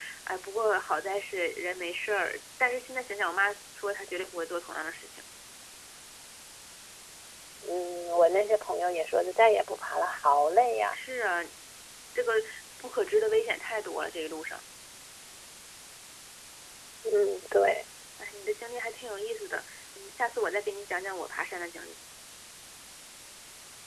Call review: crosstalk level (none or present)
none